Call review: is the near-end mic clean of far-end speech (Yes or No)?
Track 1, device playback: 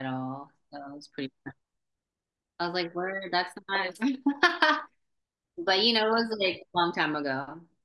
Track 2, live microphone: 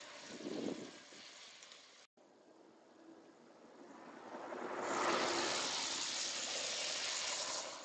Yes